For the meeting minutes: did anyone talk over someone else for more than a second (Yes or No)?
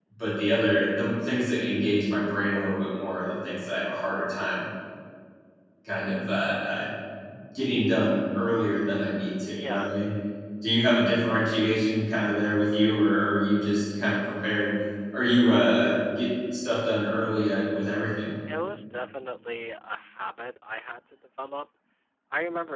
No